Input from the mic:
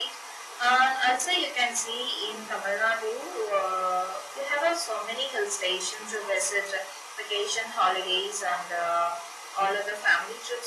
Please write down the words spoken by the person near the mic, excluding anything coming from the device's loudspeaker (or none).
none